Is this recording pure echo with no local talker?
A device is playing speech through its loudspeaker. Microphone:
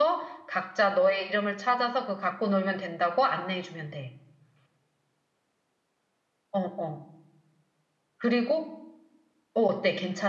No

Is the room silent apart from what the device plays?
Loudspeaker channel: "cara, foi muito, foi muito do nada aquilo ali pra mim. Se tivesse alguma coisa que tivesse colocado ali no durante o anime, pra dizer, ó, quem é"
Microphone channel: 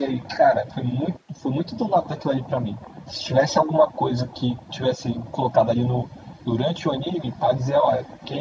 Yes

